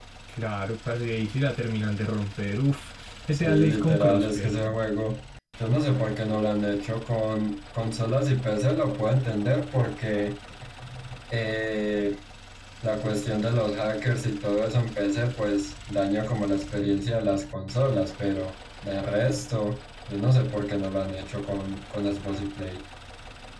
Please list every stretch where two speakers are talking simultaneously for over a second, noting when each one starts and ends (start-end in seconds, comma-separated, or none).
3.3-4.6